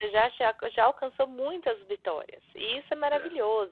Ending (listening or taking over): listening